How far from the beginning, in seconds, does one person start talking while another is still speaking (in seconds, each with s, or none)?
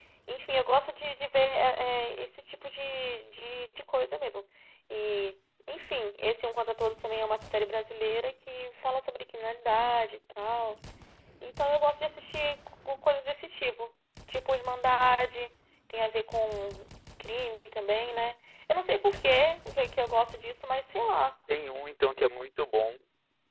none